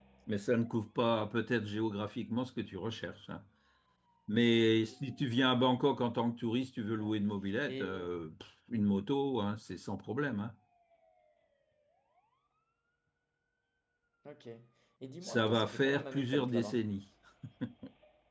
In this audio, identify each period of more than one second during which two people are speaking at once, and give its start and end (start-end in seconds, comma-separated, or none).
15.2-16.8